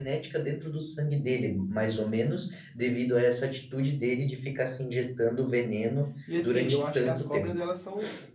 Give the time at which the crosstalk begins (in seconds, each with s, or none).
6.3 s